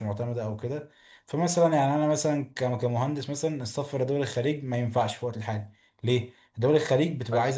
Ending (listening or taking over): listening